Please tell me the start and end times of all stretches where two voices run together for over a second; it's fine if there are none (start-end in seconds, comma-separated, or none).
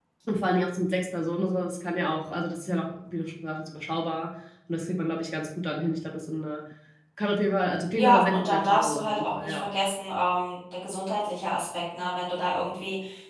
8.0-9.7